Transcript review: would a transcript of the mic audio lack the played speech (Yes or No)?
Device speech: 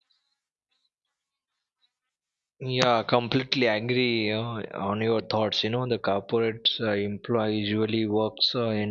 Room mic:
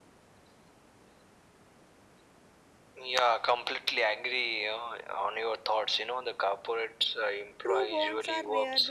No